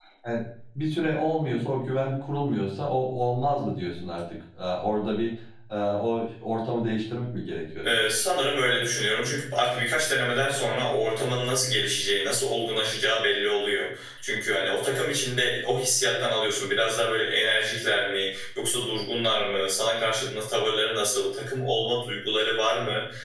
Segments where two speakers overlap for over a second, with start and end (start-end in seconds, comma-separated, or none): none